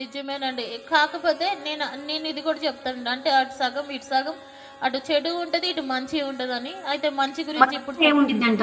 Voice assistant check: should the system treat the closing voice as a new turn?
Yes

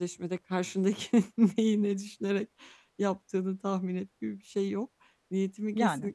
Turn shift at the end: No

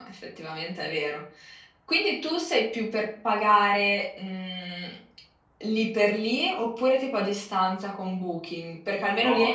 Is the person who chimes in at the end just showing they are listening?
No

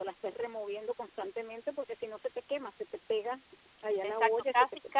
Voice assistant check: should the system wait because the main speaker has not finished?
No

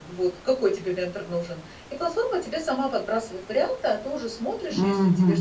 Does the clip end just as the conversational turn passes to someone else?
No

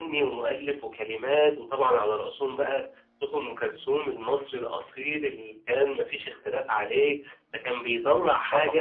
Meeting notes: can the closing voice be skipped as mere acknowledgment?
Yes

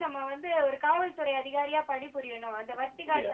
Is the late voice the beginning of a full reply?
Yes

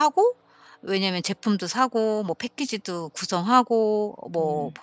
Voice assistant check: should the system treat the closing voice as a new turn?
No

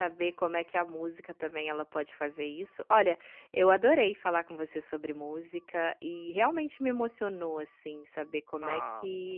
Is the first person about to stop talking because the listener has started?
No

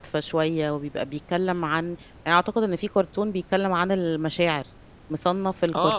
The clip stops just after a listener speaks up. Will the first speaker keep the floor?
No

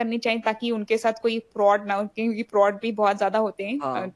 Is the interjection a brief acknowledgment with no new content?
No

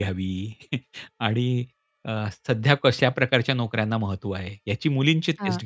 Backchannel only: Yes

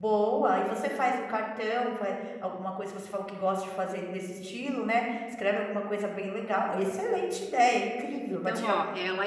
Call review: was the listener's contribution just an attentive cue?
No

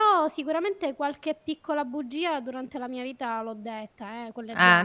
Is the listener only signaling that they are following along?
No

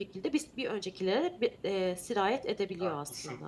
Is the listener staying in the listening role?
No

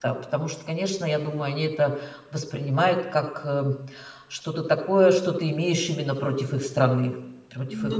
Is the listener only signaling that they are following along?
No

